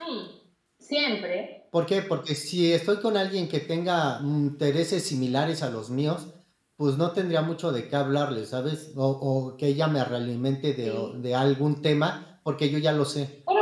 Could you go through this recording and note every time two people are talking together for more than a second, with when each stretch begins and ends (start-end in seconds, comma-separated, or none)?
none